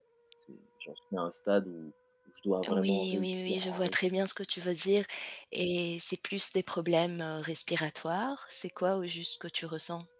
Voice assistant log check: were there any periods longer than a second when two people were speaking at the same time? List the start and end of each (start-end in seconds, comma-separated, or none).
2.7-3.9